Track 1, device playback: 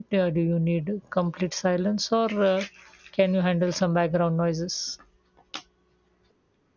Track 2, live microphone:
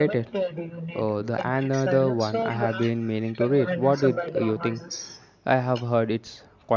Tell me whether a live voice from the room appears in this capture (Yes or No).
Yes